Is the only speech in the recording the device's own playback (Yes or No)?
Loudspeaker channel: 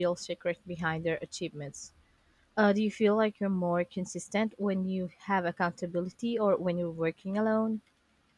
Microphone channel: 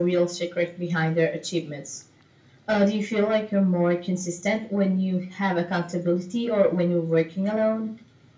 Yes